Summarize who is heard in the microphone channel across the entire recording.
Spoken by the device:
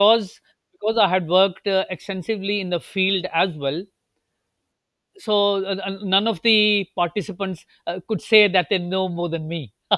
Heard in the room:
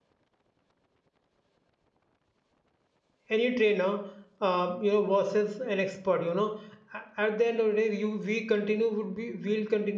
user only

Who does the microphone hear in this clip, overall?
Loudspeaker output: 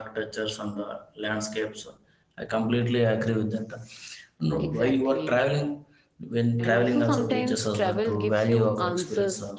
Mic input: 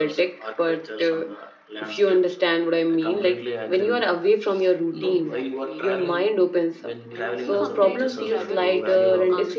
both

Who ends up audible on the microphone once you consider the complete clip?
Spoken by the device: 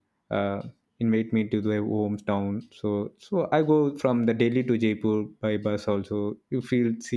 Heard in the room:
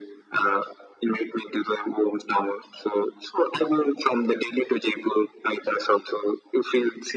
echo only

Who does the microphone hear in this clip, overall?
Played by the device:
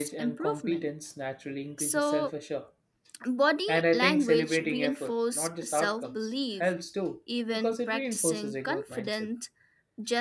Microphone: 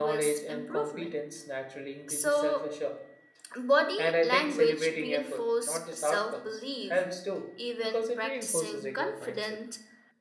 echo only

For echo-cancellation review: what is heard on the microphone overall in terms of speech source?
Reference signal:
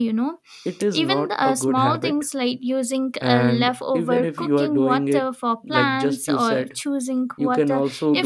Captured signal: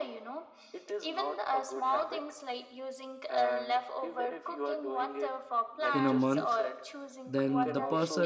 both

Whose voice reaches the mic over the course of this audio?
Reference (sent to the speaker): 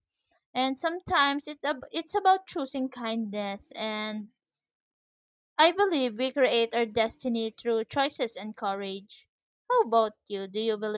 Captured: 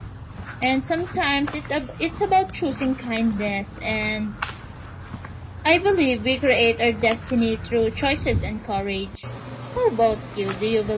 echo only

